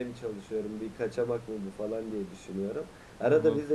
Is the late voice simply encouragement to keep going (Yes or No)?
Yes